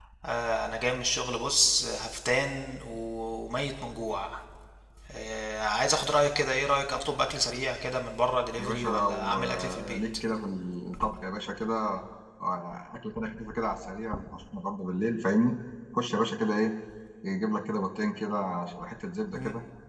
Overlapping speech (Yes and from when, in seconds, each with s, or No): Yes, from 8.6 s